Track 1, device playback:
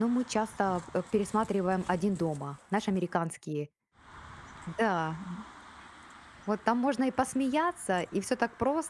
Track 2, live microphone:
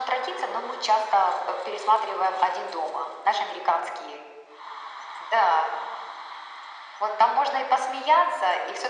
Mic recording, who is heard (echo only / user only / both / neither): echo only